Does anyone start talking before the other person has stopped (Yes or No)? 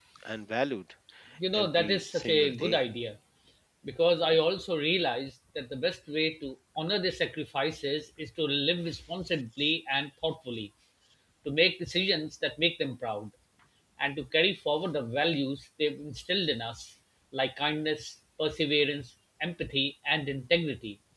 Yes